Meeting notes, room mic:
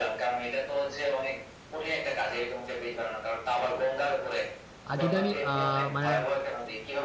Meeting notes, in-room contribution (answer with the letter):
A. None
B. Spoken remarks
B